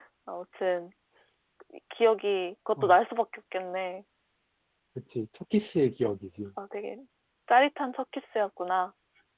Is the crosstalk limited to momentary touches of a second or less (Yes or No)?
Yes